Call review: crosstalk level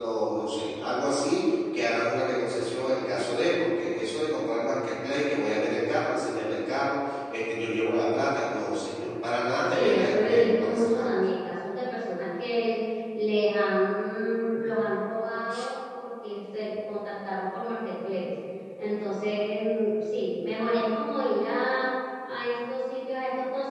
present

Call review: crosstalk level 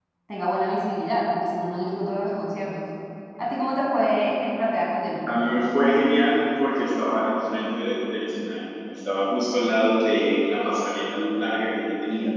none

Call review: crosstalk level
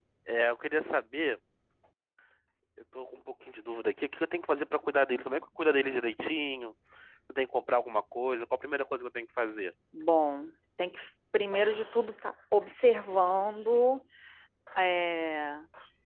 none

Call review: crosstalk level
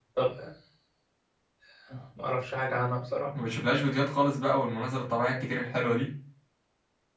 none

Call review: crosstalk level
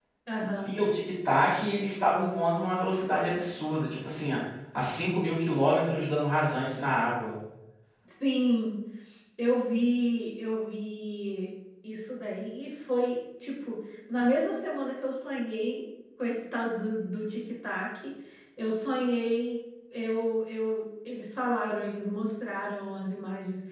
none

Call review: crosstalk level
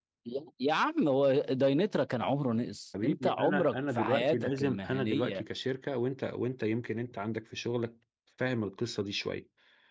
present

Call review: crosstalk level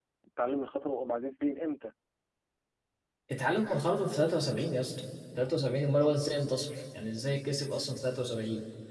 none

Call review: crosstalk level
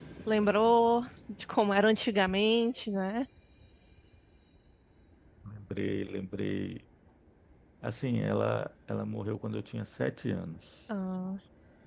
none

